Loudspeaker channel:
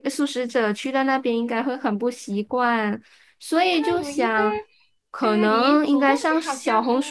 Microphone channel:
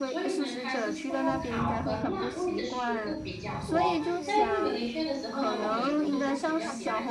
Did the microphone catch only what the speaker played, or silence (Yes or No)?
No